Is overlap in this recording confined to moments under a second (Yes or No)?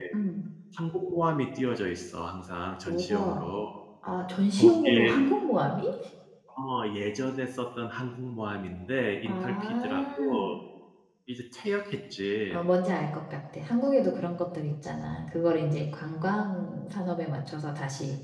No